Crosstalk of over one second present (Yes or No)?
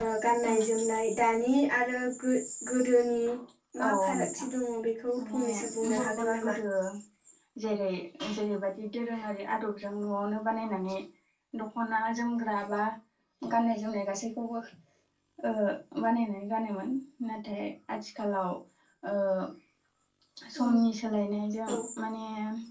Yes